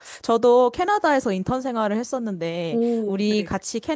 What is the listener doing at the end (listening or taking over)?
listening